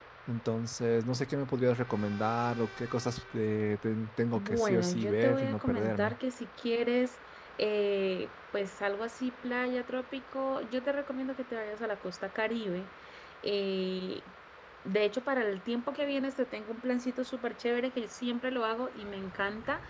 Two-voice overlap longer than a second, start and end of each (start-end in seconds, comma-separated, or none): 4.3-6.2